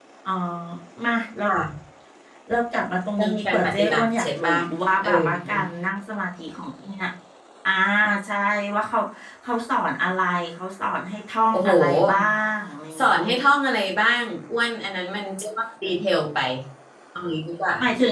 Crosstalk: present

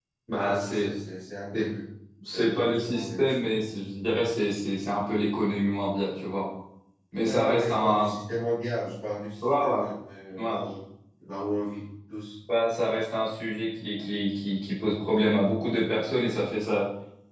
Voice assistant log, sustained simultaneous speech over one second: present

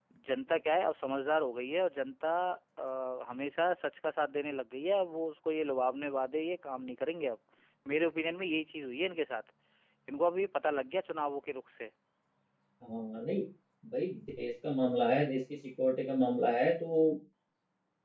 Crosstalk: none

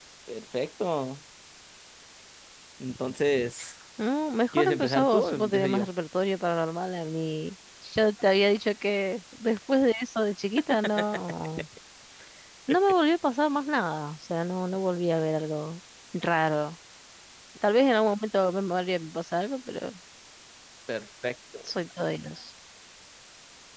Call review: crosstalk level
present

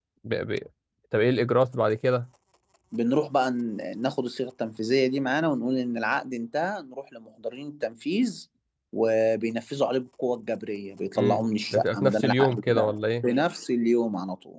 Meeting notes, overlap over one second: present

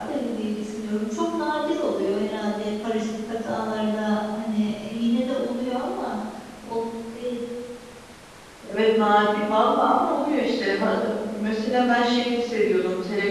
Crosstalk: none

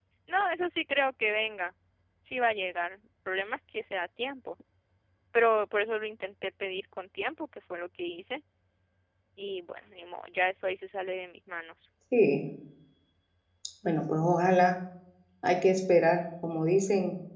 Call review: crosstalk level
none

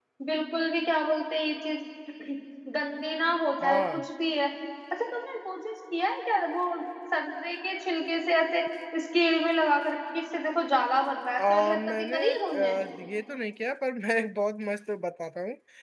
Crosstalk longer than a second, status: present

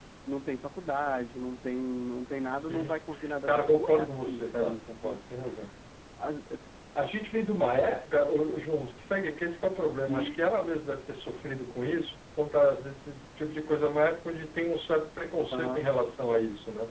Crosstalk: present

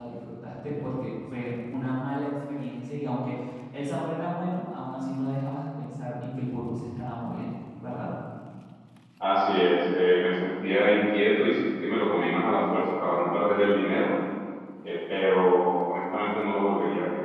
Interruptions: none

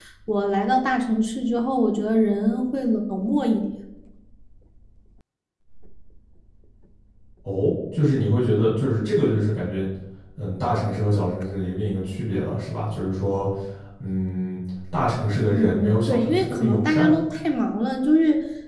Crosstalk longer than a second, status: present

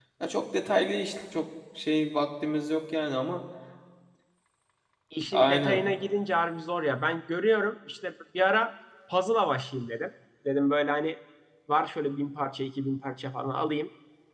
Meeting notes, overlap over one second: none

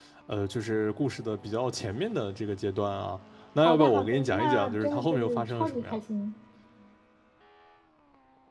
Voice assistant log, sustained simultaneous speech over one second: present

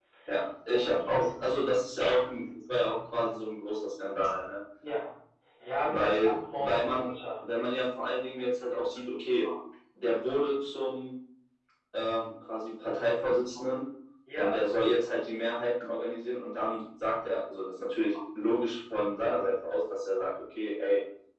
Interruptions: present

